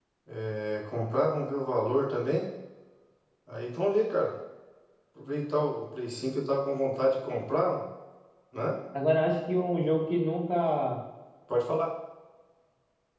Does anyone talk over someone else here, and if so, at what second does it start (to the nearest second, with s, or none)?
none